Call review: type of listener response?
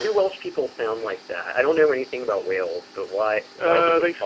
taking over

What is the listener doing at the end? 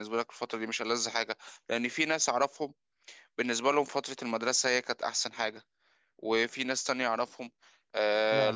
listening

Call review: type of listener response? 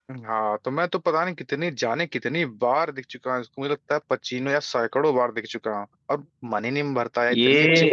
taking over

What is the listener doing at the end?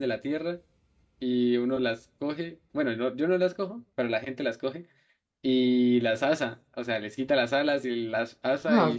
taking over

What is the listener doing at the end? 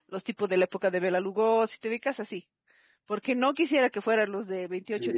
listening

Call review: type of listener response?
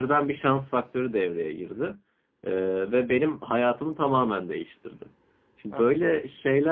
listening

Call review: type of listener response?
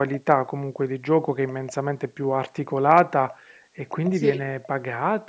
listening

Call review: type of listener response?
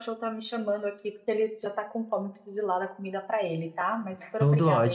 taking over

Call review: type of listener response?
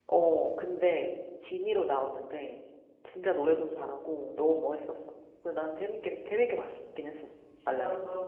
taking over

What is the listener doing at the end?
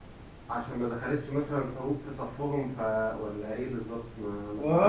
taking over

